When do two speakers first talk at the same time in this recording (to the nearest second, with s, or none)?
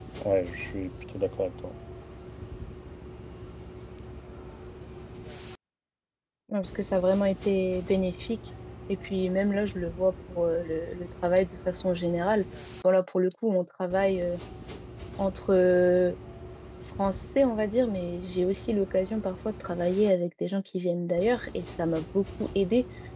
none